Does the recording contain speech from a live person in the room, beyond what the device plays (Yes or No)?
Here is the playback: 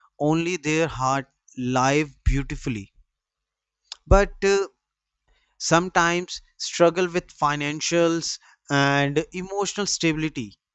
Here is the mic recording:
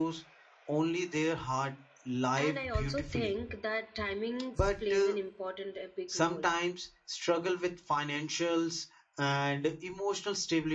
Yes